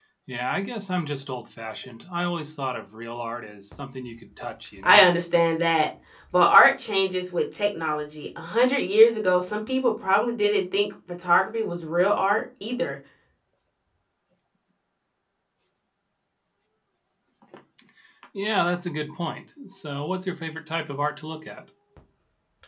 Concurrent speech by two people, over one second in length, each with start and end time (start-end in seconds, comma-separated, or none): none